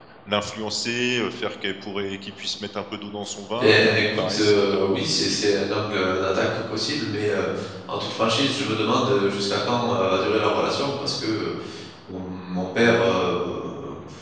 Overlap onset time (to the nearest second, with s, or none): 4 s